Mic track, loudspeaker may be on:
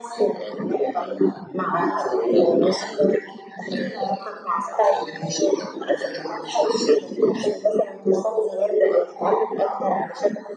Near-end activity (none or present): none